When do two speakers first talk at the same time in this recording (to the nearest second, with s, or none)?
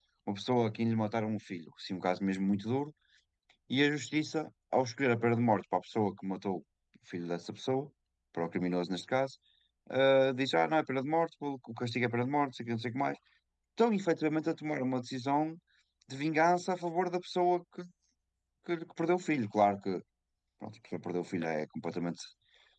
none